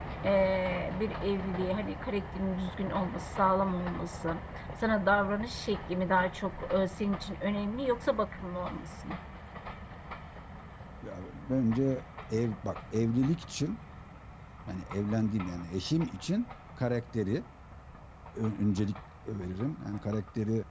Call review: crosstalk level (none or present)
none